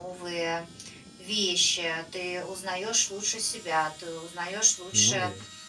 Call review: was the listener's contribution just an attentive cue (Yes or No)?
Yes